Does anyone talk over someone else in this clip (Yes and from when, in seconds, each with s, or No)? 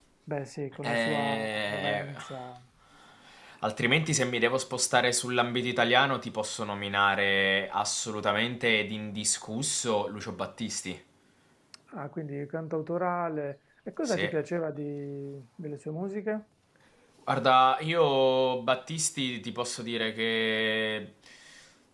Yes, from 0.8 s